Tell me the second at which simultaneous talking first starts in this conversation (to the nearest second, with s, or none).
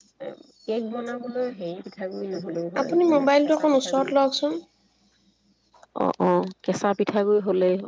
3 s